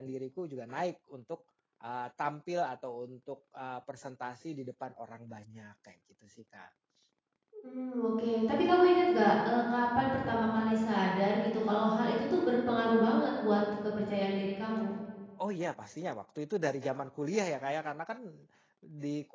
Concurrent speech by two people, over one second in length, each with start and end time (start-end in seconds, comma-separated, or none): none